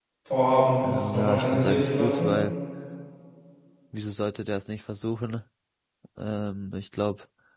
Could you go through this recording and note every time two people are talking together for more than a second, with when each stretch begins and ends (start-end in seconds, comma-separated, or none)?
0.8-2.3